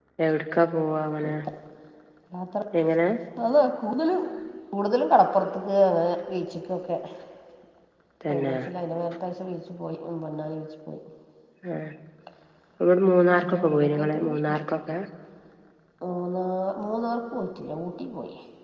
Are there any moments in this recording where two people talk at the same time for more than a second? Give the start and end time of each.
13.4-14.6

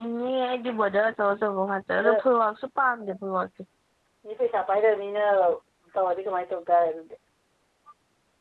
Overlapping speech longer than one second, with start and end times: none

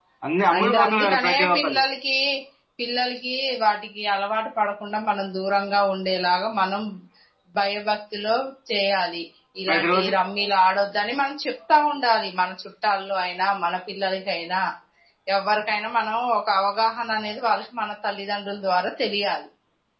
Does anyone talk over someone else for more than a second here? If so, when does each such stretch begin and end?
0.6-1.8

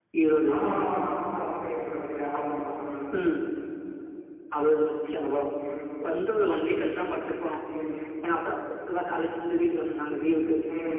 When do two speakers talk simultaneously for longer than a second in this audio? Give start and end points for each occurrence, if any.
none

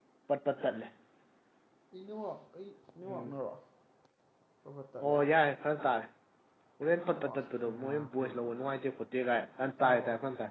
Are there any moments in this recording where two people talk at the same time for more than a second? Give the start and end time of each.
7.1-8.4

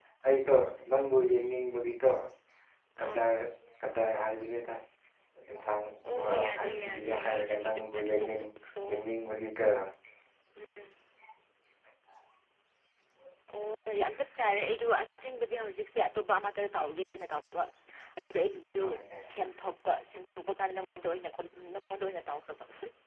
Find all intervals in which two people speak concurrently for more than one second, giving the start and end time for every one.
6.2-8.3

